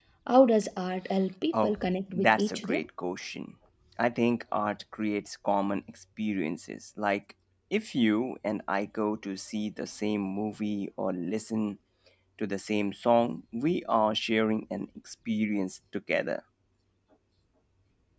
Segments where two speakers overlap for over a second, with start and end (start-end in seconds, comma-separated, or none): 1.5-2.8